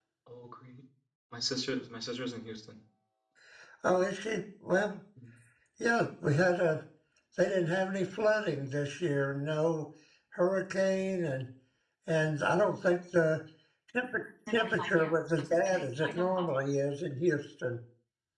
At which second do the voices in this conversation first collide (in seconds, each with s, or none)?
14.5 s